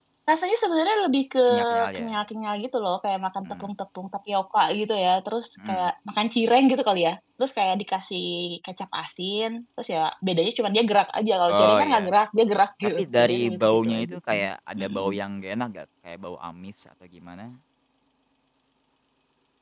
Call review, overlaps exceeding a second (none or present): present